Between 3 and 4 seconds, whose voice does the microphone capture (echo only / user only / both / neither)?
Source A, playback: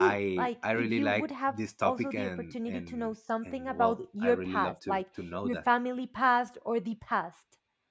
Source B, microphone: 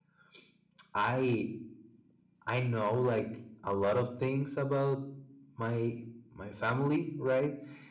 user only